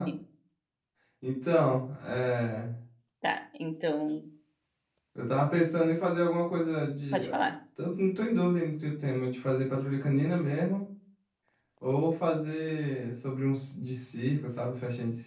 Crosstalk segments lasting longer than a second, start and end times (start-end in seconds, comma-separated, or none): none